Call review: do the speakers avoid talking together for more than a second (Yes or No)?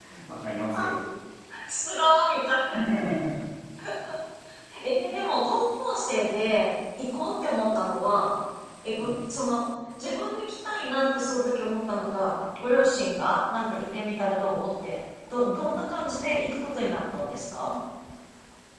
Yes